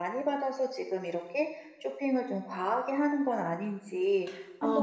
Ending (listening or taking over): taking over